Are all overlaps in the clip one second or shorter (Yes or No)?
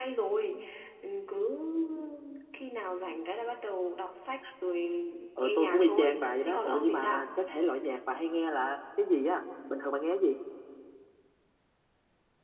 No